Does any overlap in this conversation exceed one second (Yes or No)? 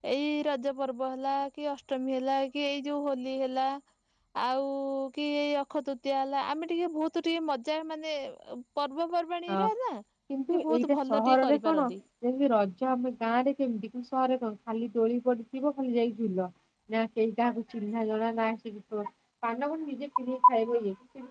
Yes